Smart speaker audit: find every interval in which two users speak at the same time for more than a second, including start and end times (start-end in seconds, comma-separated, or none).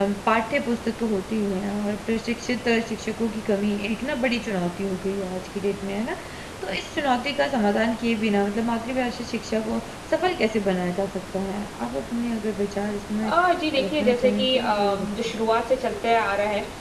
13.8-15.1